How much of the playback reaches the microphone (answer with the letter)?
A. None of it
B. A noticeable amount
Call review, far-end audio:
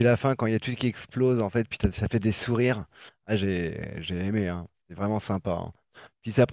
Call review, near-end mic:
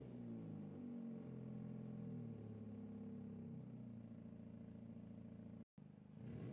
A